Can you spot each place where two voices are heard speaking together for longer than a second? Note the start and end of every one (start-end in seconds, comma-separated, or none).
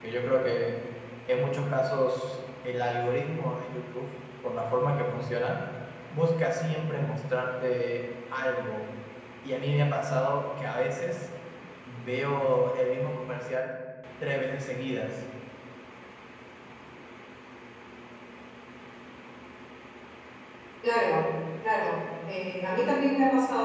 none